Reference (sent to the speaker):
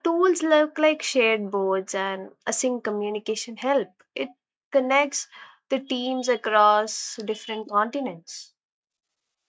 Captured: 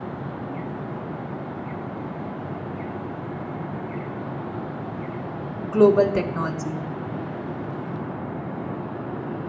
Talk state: user only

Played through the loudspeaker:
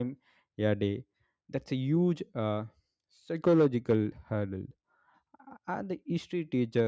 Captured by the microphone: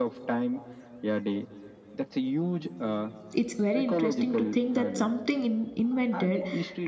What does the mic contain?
both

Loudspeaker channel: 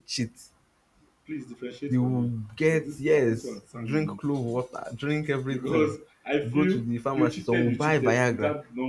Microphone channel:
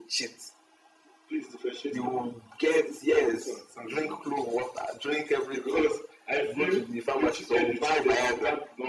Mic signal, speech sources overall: echo only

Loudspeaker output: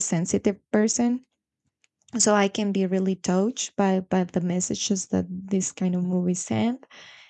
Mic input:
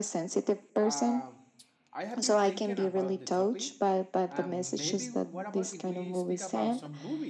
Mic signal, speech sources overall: both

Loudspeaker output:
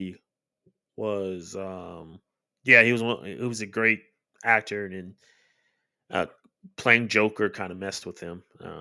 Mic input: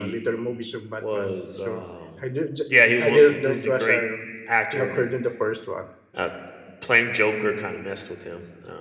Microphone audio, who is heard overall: both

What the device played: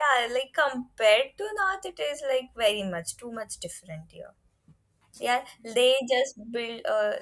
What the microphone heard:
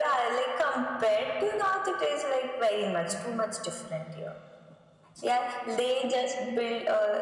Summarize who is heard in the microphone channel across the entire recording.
echo only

